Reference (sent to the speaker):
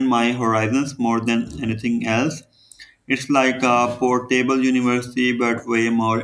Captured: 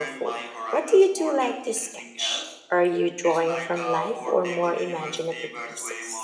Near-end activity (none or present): present